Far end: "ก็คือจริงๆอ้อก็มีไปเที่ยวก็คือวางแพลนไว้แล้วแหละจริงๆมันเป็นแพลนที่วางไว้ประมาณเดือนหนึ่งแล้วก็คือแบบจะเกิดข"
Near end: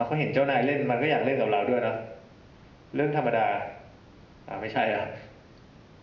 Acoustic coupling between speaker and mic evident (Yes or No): No